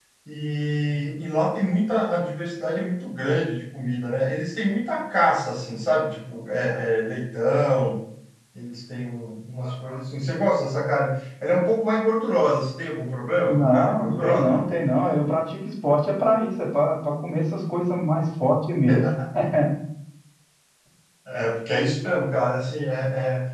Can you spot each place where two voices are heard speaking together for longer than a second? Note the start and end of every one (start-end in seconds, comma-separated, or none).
13.5-14.7